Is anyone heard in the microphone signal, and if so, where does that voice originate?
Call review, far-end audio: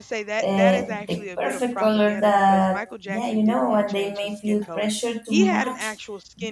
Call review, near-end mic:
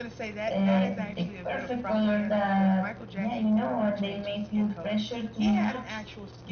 echo only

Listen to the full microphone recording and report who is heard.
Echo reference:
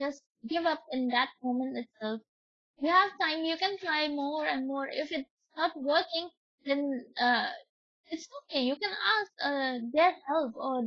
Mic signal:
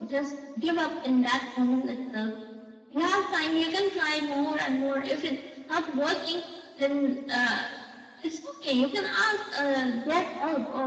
echo only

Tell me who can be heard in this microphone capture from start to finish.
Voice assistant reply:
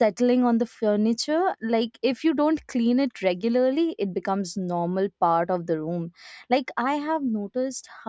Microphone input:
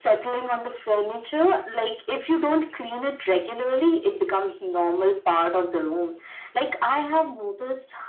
echo only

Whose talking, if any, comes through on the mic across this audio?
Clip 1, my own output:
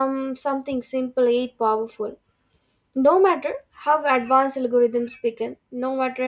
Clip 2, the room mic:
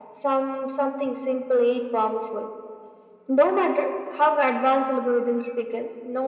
echo only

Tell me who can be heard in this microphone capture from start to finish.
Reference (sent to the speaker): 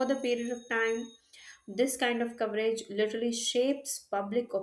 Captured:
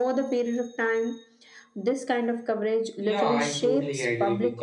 both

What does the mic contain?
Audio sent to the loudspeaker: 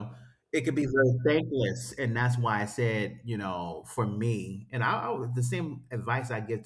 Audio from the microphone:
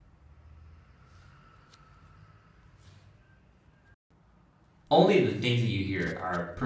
user only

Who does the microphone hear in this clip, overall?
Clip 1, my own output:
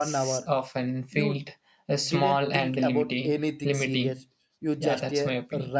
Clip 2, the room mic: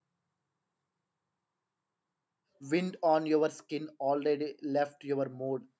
user only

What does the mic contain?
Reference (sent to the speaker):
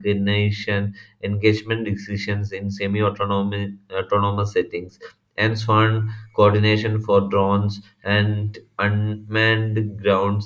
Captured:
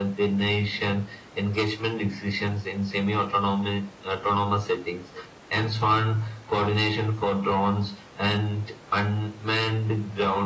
echo only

